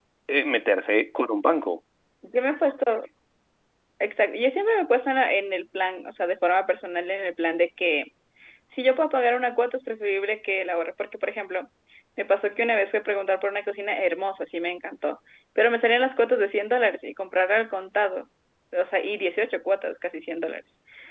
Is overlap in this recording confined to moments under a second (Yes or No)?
Yes